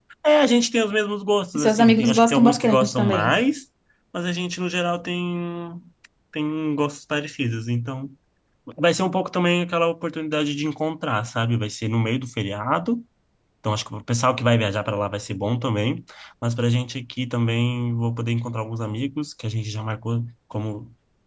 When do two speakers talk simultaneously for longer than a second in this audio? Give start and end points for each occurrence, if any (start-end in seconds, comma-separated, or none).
1.6-3.3